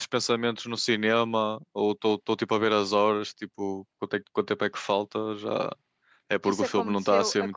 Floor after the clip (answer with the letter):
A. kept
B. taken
B